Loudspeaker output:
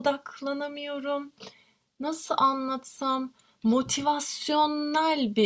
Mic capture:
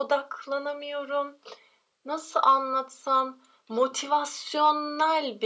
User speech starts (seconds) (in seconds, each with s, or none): none